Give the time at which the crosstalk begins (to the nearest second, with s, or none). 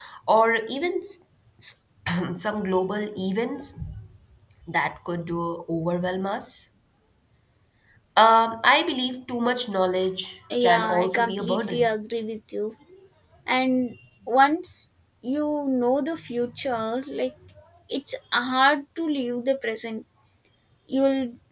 11 s